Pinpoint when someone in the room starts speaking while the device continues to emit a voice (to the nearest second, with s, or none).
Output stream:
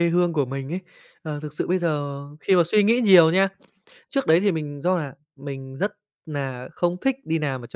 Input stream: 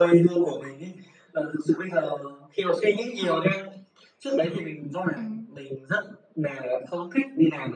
5 s